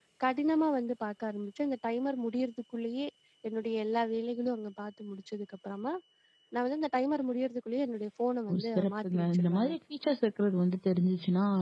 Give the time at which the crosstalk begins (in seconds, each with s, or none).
8.5 s